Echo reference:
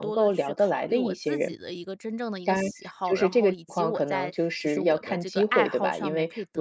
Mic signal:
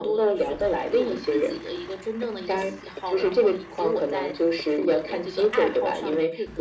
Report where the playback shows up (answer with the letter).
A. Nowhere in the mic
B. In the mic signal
B